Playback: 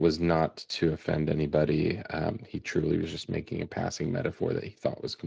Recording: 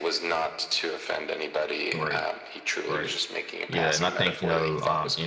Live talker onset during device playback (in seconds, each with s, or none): 1.9 s